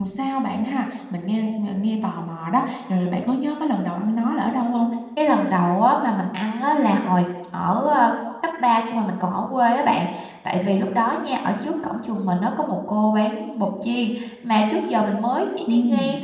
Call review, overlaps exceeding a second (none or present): none